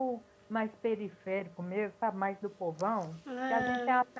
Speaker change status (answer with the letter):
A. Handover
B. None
B